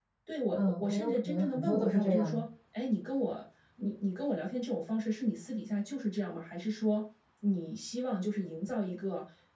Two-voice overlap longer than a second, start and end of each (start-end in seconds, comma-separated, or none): 0.5-2.4